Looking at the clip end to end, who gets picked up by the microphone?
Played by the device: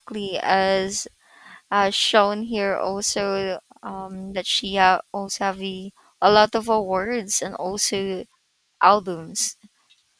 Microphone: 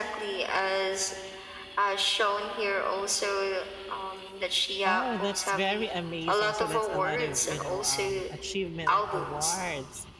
both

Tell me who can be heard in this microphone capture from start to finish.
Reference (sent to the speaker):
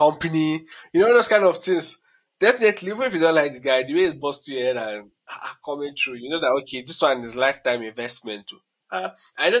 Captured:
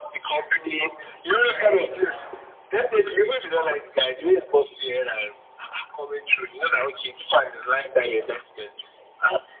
both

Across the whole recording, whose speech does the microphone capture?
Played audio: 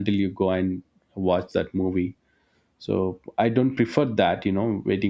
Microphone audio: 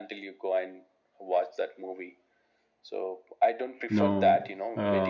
both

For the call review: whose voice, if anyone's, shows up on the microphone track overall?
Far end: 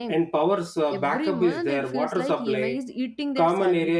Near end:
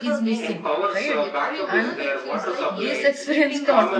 both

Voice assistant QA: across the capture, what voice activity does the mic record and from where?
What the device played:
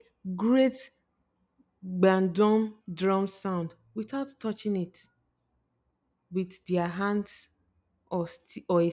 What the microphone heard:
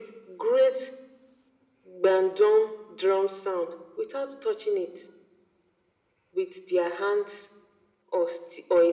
echo only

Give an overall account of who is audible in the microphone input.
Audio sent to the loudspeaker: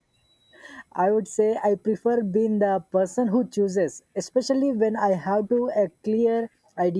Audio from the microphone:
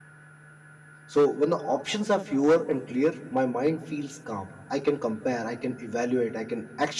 user only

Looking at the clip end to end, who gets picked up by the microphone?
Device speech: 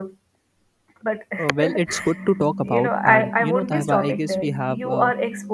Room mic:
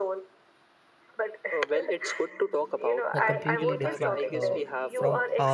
both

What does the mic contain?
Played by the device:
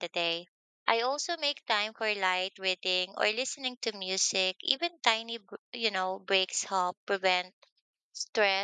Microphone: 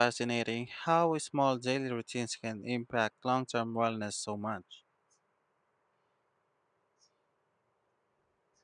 user only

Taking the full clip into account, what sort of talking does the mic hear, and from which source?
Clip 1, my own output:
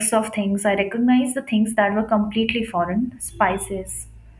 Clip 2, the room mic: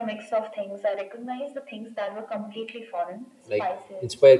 both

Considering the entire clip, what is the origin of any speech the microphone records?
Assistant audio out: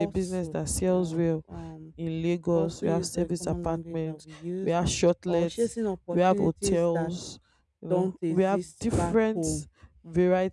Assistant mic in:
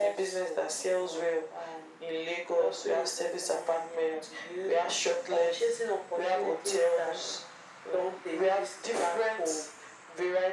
echo only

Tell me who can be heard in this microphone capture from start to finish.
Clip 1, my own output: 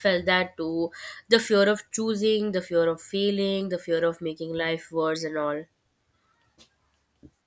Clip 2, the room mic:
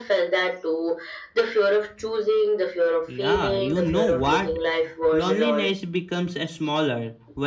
both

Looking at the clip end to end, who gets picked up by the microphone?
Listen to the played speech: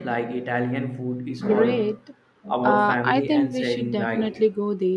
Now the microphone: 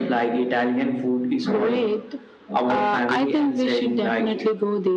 echo only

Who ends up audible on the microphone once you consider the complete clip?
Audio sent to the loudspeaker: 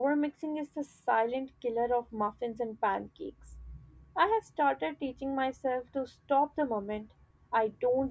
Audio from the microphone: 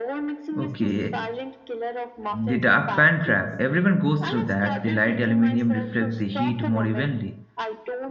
both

